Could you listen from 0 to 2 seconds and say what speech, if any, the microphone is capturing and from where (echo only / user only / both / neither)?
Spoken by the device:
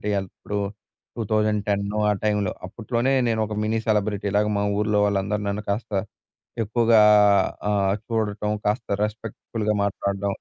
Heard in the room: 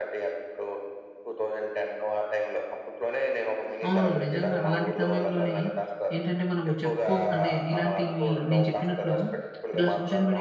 echo only